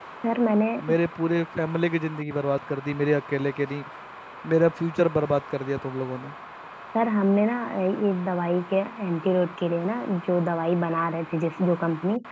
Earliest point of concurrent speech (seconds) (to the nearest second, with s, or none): none